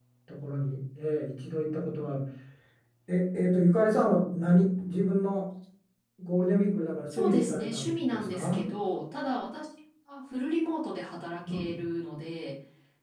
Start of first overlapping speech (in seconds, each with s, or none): 7.1 s